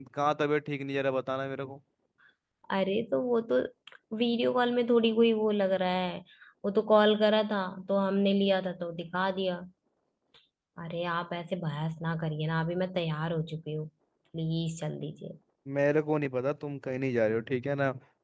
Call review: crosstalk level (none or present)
none